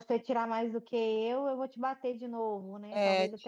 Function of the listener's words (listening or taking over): taking over